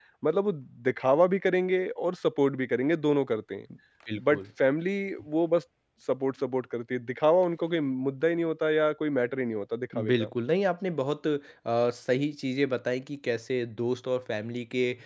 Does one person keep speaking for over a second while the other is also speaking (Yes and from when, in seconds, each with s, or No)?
No